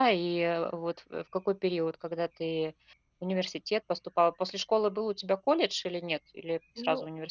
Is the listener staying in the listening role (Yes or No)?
No